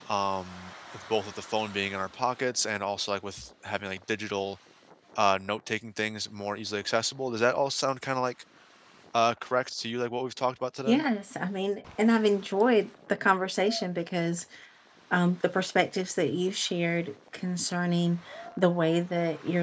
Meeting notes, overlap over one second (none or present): none